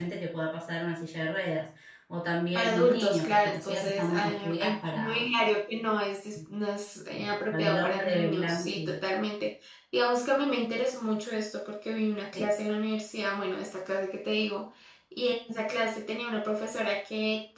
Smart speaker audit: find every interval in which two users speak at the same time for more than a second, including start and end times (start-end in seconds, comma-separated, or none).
2.5-5.3, 7.5-8.9